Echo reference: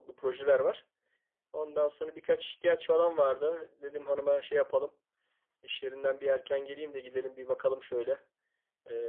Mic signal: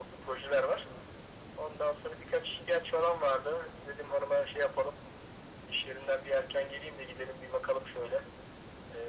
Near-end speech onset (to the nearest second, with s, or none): none